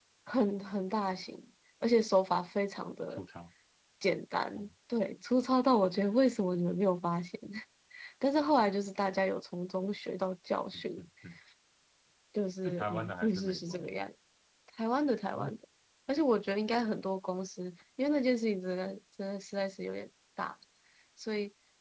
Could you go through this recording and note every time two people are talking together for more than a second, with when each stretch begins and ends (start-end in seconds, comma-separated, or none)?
12.6-13.9